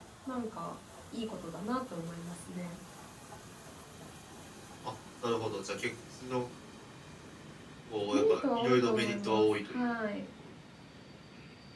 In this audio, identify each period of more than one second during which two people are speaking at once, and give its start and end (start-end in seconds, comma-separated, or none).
8.1-9.8